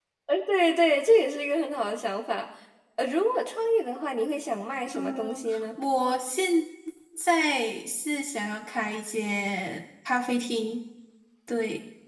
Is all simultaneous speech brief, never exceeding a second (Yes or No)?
Yes